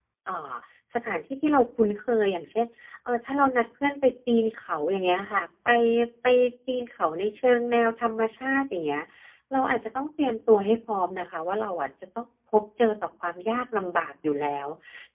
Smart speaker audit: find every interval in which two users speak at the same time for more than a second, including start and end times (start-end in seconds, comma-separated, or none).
none